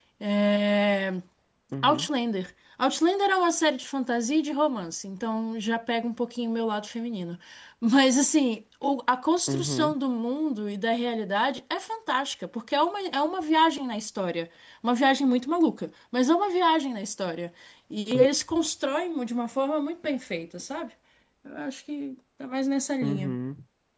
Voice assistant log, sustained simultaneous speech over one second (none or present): none